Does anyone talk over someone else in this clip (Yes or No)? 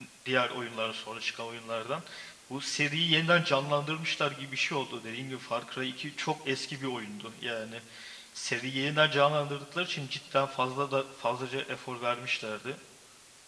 No